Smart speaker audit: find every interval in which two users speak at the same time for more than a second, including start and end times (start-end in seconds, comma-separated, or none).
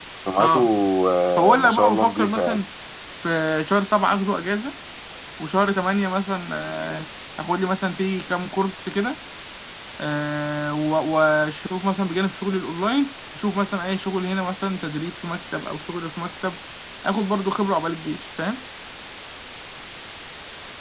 1.4-2.6